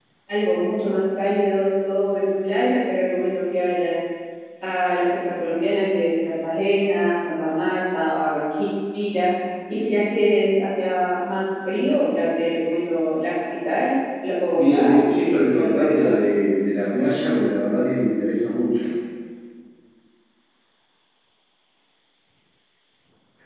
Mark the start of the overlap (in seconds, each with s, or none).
14.5 s